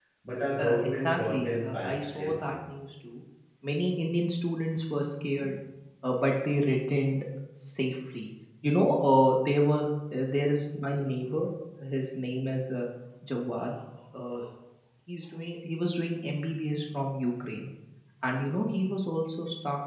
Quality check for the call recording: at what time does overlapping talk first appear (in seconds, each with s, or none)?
0.6 s